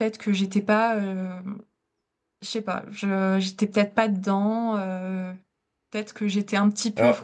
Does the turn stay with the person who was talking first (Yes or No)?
Yes